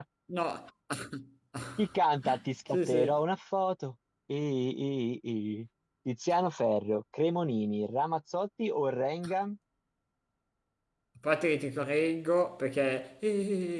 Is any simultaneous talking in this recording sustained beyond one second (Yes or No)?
No